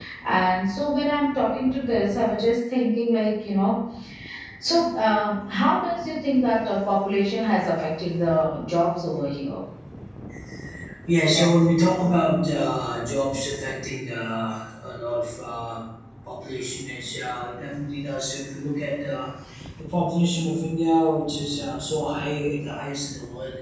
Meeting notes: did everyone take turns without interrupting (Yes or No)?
Yes